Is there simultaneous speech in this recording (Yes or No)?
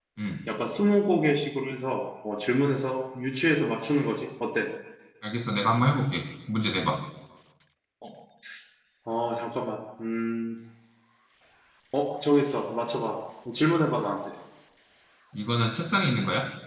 No